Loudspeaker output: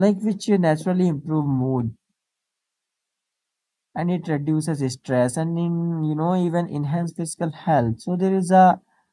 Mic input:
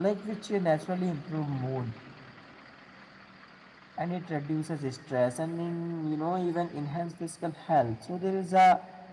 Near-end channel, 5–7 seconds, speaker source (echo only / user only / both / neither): echo only